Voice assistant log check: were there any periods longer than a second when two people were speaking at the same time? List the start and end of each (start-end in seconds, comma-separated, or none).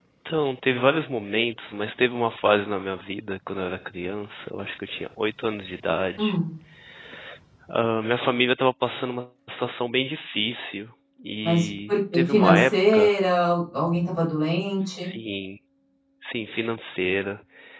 11.4-13.1